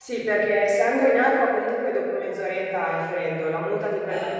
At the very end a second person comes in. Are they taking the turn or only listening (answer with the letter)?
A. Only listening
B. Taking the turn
A